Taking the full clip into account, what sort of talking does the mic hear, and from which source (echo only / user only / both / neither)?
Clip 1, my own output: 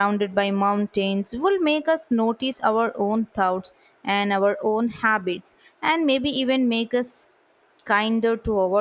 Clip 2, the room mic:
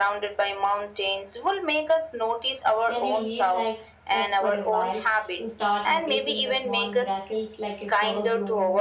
both